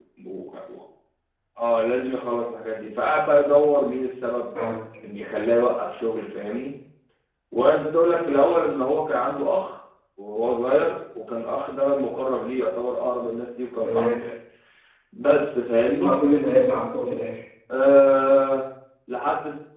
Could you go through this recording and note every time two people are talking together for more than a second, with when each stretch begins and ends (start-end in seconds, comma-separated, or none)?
none